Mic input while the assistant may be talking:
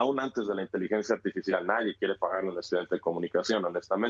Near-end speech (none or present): present